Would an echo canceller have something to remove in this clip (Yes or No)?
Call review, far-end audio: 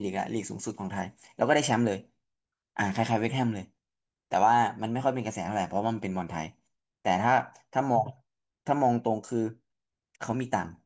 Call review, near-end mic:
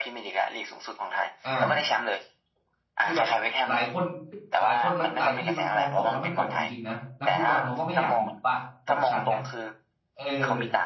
Yes